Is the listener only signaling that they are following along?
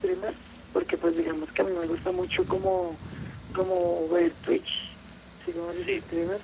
Yes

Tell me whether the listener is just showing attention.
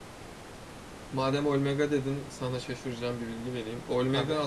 Yes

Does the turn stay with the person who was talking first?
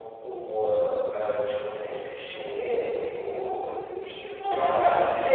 No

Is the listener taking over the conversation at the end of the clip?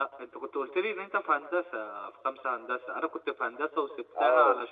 No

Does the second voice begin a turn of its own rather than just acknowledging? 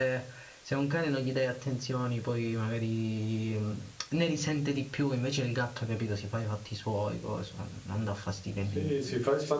Yes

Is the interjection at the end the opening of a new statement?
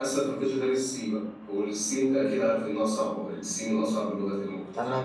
Yes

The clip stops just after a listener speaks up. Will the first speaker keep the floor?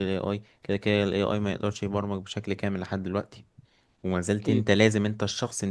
Yes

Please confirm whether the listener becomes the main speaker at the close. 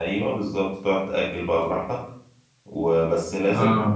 No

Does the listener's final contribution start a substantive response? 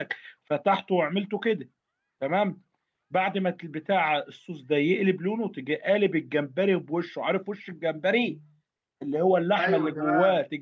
No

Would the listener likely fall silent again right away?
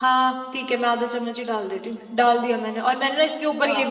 Yes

